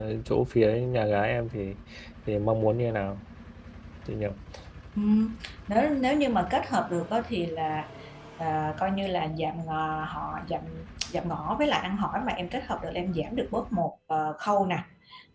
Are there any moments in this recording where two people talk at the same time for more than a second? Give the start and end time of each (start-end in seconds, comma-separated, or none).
none